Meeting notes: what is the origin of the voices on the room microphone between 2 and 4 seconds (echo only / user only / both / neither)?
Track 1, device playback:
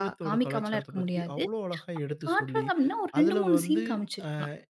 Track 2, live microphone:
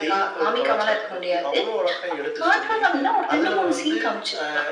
echo only